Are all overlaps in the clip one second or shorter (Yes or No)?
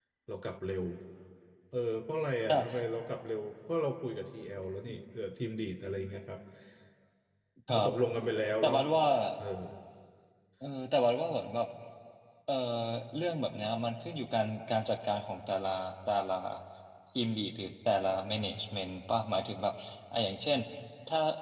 Yes